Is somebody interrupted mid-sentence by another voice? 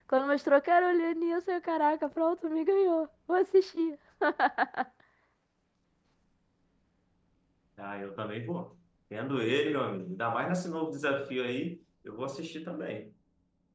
No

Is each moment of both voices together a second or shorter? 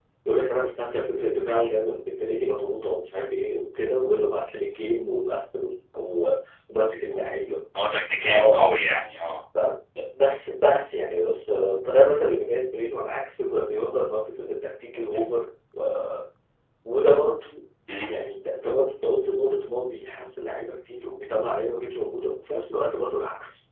Yes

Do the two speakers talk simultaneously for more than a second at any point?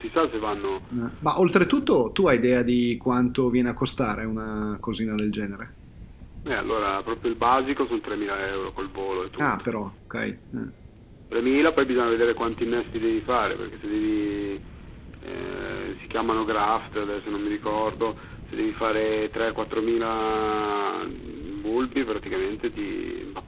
No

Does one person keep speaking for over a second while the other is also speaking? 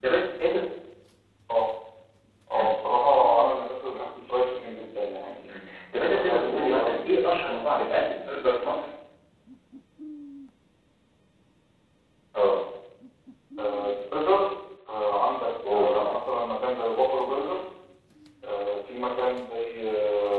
Yes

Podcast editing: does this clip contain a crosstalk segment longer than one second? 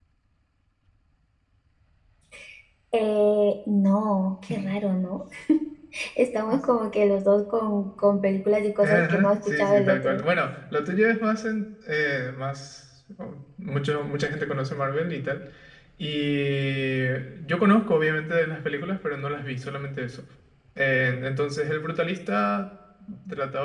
Yes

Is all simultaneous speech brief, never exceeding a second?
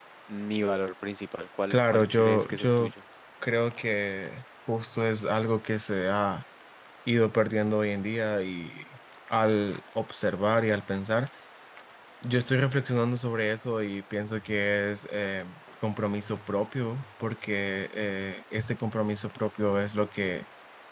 No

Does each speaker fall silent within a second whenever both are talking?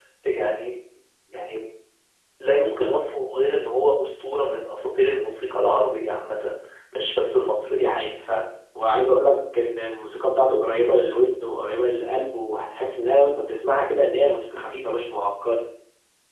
Yes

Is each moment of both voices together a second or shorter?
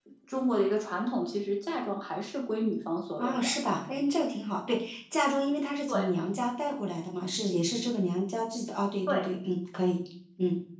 Yes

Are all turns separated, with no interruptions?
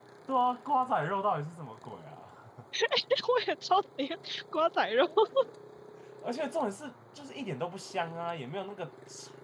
Yes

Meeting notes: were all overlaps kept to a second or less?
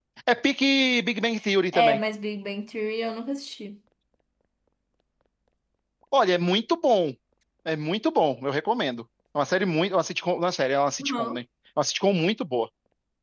Yes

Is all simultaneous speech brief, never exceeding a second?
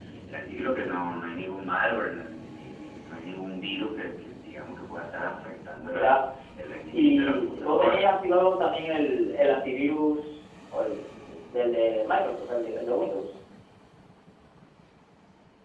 No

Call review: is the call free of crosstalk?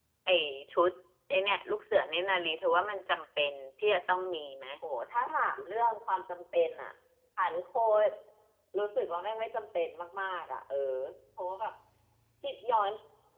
Yes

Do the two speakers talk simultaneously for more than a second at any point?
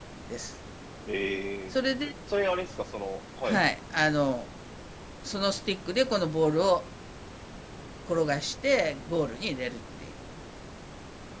No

